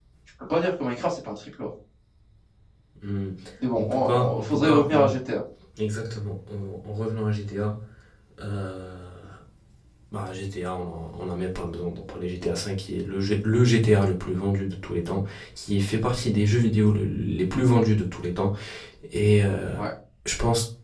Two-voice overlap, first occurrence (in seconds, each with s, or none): 3.8 s